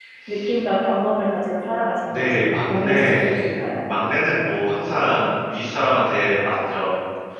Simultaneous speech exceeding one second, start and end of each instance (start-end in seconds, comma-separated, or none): 2.1-3.3